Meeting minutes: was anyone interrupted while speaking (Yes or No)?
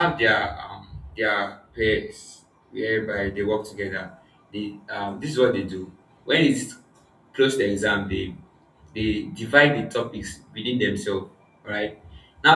No